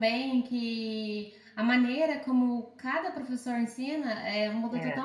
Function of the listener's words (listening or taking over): listening